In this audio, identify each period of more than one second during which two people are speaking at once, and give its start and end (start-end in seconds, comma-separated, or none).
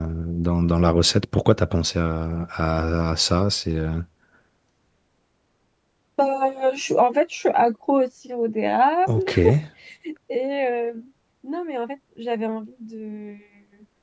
none